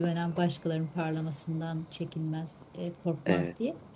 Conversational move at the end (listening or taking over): listening